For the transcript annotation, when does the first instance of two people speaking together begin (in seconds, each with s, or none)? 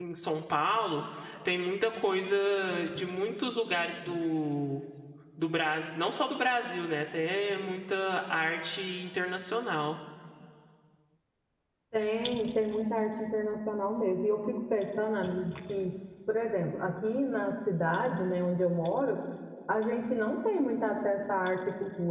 none